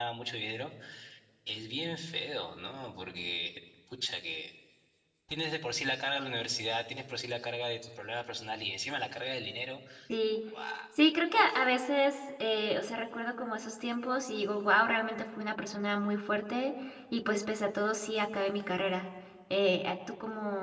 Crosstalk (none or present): none